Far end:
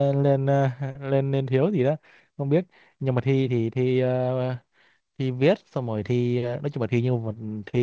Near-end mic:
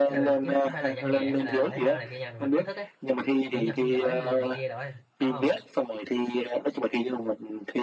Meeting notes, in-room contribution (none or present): present